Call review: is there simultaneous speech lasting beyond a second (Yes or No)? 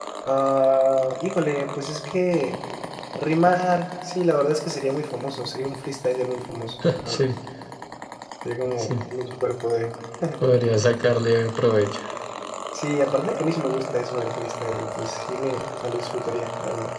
No